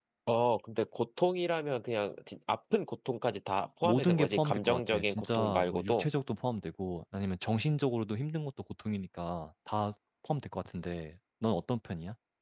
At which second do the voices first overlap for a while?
3.8 s

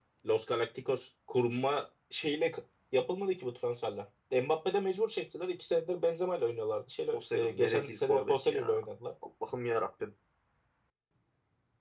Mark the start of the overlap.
7.1 s

